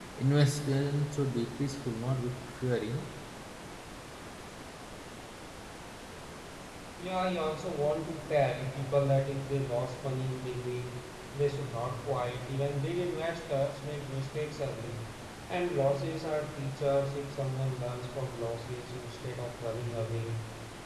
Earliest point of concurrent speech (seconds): none

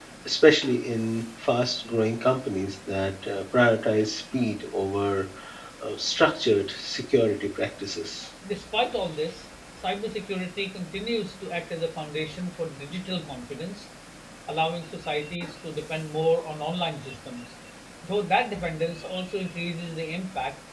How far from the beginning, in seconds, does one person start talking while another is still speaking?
none

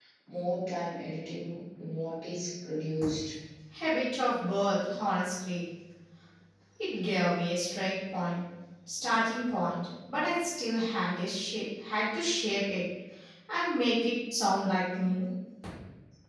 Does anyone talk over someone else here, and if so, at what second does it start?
none

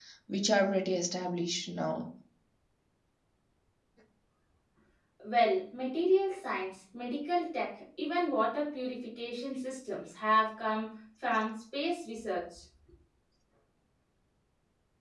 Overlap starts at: none

